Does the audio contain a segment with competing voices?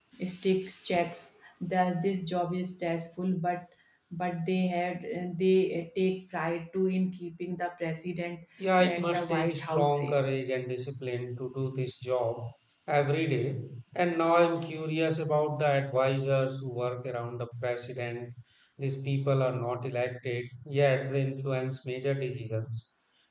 Yes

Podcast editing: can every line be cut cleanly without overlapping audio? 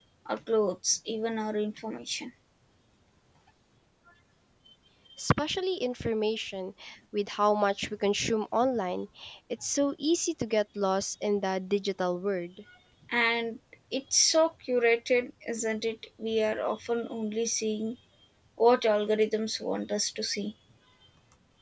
Yes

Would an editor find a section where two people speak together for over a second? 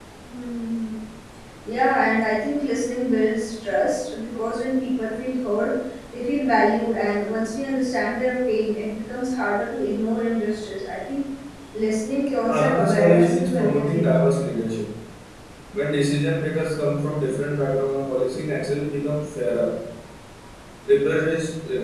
Yes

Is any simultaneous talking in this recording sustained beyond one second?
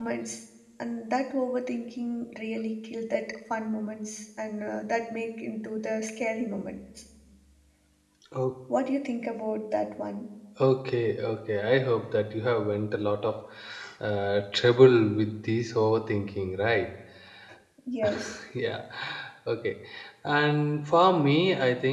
No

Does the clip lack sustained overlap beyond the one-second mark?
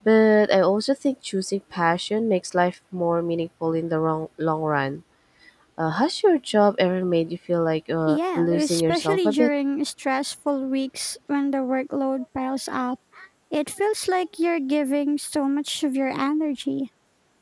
No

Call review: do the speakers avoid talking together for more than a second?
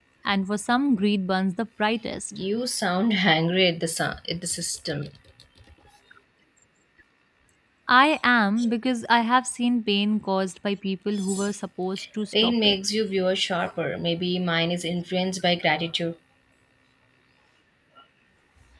Yes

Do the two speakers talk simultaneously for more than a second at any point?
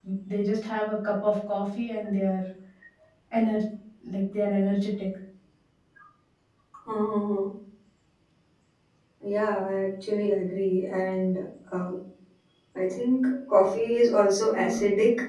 No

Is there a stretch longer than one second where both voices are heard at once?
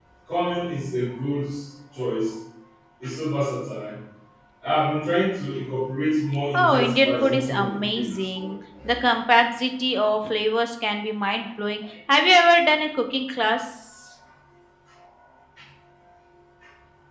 Yes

